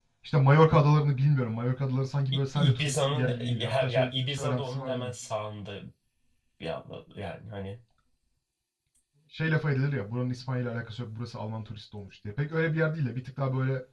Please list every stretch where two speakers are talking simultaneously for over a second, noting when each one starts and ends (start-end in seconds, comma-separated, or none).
2.5-5.1